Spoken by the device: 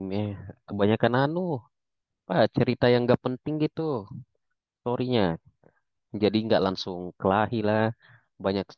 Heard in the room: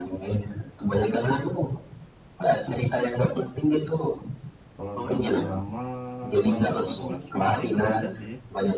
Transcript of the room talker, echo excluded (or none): kalau drama-drama kurang suka sih Mas. Paling ada sih